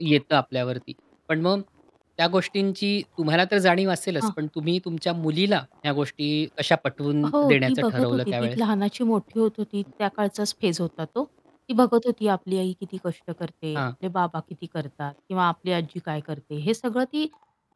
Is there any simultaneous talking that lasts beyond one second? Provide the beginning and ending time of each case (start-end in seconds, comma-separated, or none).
7.3-8.6